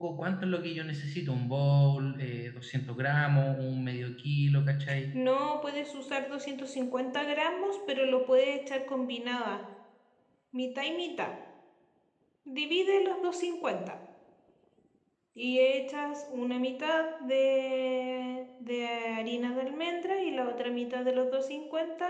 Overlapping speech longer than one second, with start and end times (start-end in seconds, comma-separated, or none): none